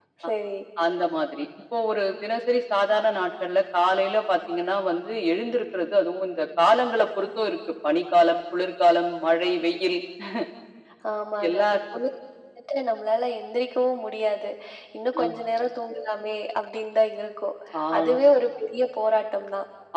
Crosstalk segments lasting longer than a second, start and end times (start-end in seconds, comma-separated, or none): none